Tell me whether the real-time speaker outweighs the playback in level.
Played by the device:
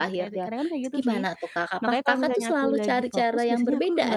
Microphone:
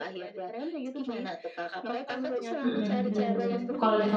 Yes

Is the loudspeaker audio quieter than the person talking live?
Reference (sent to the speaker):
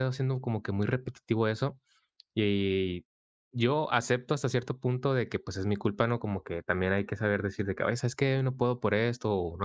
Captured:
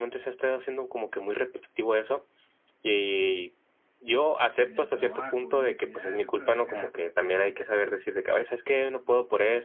No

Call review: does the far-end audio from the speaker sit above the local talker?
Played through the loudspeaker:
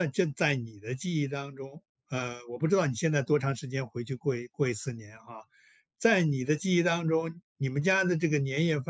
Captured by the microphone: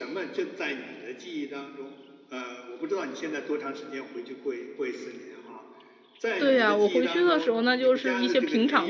No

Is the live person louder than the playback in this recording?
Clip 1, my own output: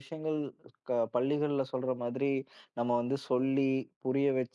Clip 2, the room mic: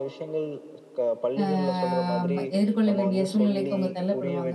Yes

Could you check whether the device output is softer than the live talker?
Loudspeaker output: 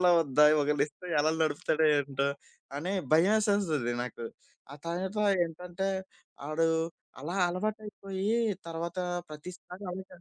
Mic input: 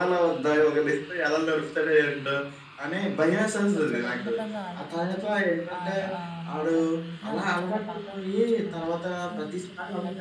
No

